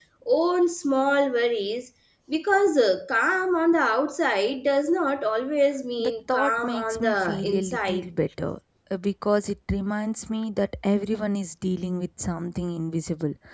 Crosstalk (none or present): present